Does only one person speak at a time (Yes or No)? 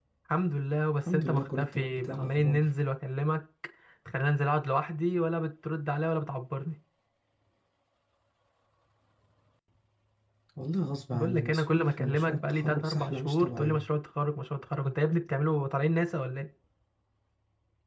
No